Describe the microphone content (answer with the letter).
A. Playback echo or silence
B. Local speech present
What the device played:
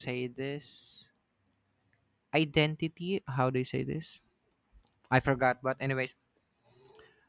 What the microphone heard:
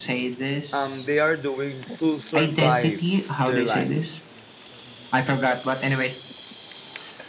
B